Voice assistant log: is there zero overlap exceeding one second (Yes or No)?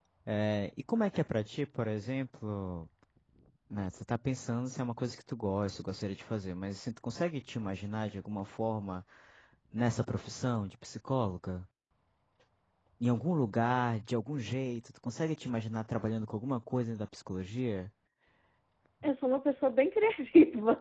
Yes